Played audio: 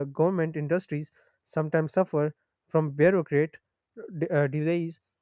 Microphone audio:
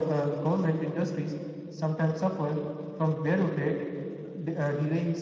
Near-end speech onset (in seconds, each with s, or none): none